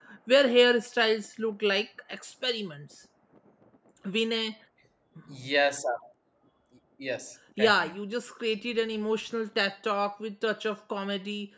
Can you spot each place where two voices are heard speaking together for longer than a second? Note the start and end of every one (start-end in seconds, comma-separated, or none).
none